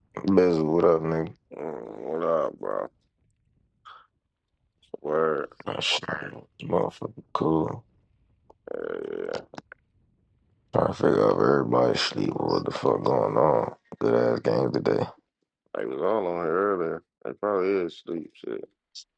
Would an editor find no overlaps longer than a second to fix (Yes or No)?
Yes